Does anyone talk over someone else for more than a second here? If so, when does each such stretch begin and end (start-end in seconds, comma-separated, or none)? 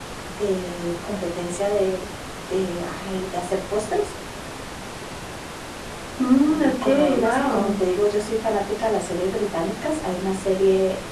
6.4-7.7